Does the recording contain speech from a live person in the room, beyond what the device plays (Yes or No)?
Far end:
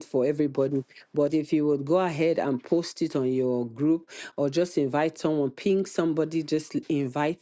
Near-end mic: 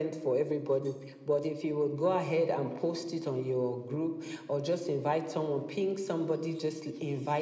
No